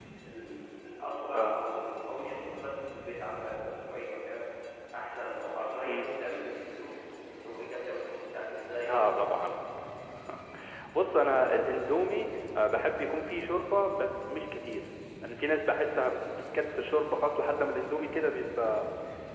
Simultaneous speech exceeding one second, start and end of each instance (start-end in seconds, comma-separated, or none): none